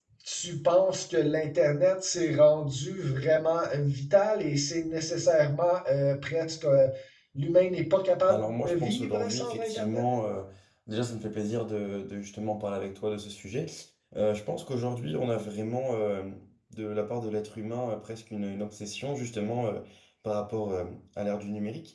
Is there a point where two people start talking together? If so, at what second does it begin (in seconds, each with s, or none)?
8.3 s